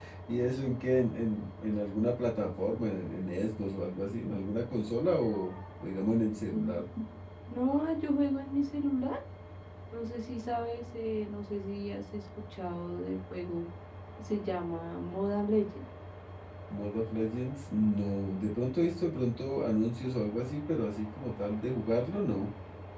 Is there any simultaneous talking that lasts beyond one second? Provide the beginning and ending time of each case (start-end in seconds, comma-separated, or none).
none